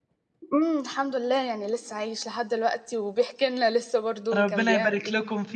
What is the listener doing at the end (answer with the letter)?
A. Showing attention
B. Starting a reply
B